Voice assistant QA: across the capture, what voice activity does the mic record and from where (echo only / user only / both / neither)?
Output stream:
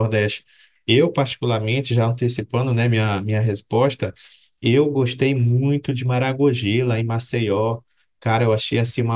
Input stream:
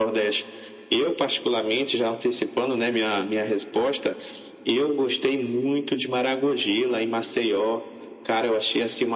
echo only